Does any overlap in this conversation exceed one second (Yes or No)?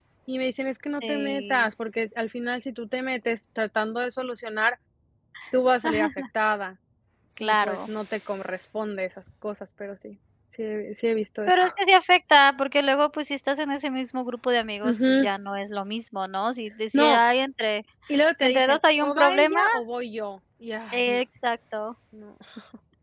Yes